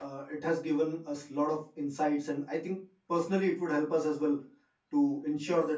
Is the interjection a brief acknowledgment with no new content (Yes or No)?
Yes